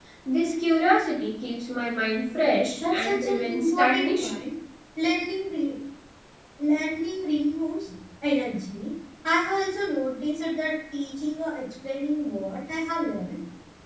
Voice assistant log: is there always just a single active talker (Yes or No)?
No